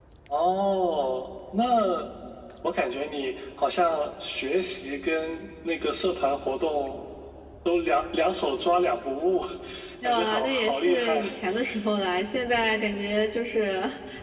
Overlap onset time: 10.0 s

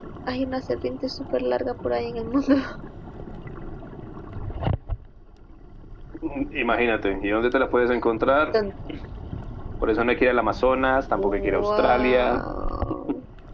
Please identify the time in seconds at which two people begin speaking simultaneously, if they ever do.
11.2 s

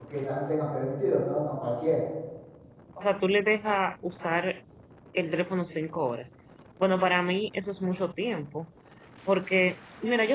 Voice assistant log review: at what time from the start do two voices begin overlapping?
none

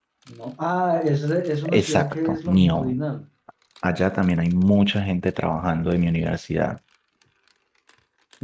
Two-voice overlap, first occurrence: 1.6 s

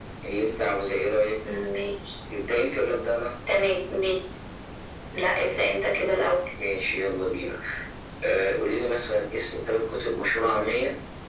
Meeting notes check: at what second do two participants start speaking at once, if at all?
none

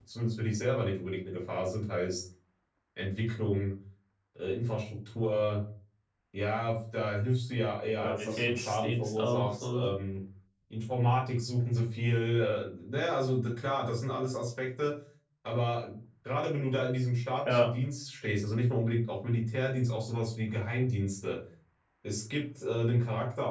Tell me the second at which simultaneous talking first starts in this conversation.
8.0 s

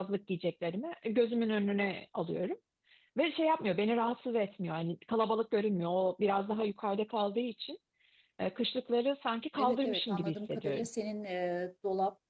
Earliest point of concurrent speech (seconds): 9.6 s

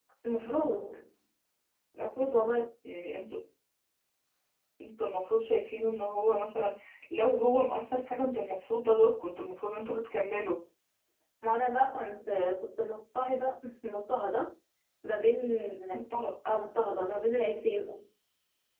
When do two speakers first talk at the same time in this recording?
none

